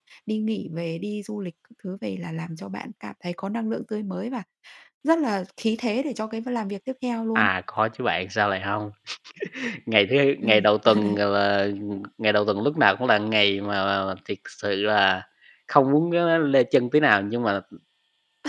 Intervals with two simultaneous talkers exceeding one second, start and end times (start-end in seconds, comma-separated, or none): none